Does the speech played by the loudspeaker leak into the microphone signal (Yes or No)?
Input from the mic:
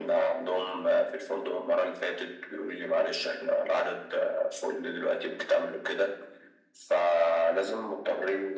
Yes